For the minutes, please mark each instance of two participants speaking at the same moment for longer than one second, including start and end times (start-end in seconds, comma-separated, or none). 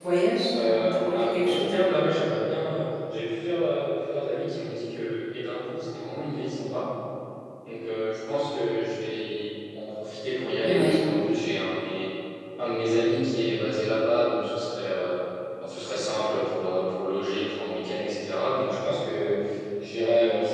0.6-1.8